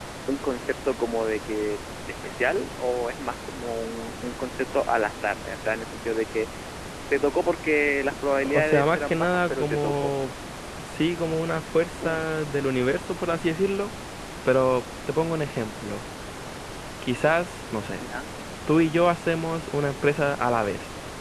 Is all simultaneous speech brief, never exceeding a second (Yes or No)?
No